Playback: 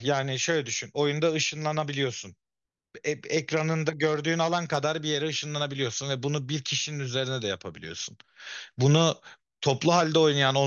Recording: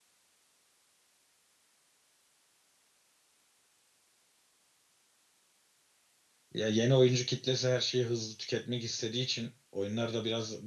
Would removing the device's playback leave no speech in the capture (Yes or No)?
No